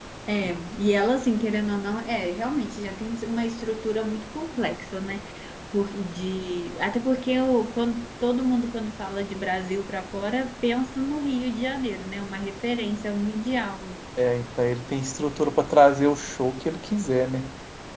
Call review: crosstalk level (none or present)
none